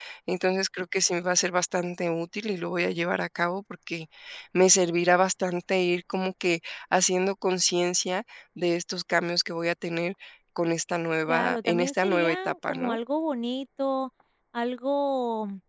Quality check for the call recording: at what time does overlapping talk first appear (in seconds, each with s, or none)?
11.3 s